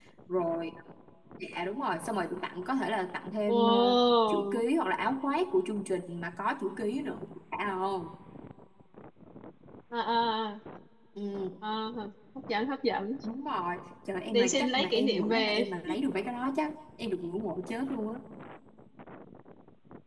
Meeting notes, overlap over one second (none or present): present